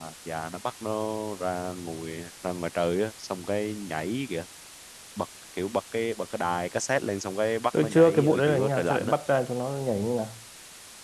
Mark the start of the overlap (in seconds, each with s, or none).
7.7 s